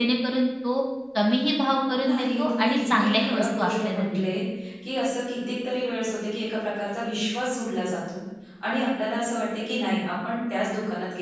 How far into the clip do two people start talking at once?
1.9 s

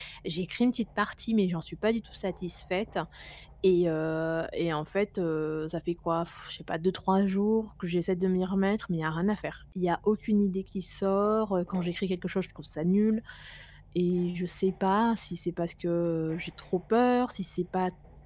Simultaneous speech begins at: none

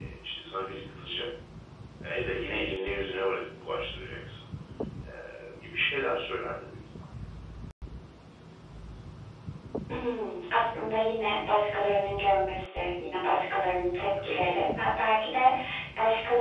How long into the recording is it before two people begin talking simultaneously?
none

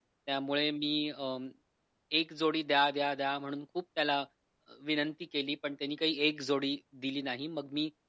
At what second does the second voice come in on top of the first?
none

